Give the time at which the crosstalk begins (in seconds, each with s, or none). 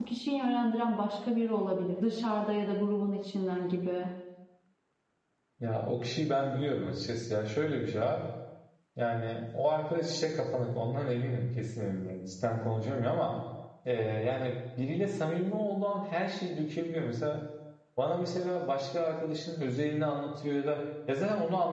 none